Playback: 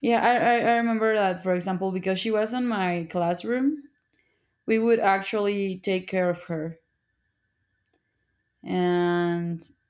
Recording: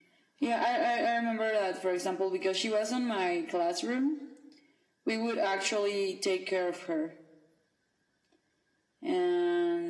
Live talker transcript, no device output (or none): none